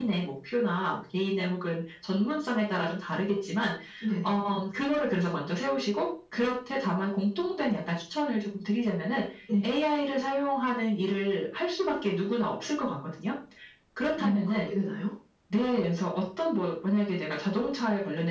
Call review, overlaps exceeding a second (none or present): none